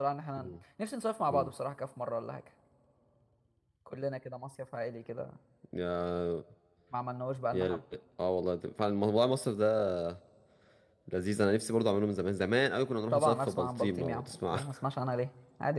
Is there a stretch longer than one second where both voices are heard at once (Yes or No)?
Yes